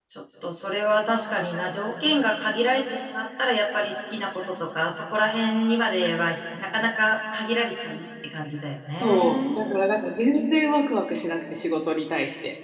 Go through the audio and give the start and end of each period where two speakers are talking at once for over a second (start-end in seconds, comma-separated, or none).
none